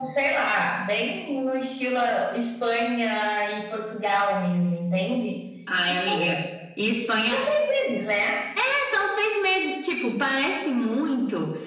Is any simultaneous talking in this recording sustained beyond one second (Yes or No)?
No